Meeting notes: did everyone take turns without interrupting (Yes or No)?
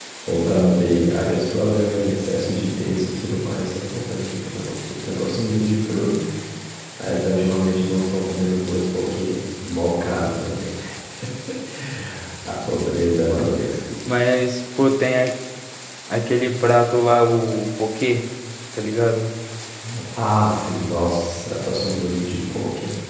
Yes